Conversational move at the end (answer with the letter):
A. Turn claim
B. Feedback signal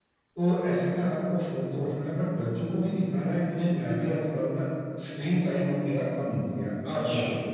A